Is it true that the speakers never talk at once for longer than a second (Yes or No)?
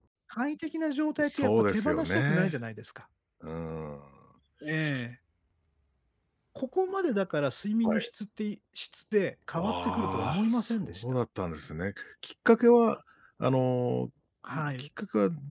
No